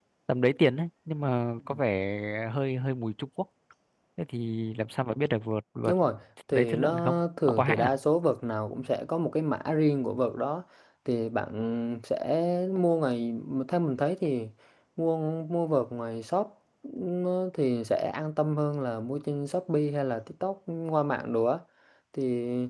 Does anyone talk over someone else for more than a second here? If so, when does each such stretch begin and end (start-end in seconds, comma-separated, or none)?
6.5-7.9